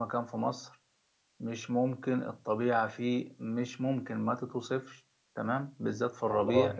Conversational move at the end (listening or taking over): listening